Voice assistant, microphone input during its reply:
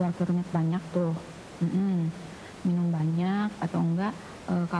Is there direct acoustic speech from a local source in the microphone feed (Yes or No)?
No